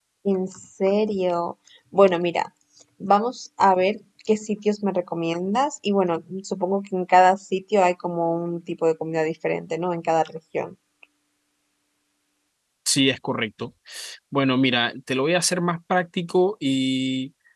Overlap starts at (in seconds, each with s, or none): none